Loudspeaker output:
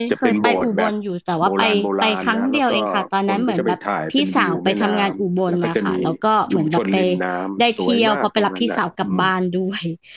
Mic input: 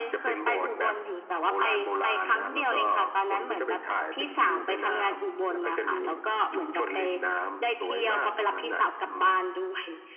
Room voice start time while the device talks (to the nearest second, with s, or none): none